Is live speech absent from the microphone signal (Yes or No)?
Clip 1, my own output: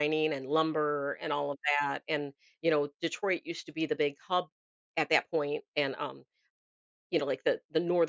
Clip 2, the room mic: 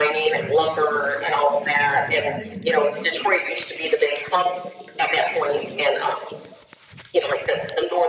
Yes